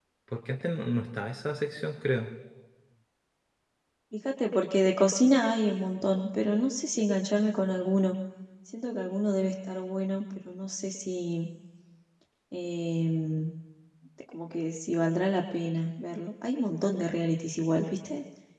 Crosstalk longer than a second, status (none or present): none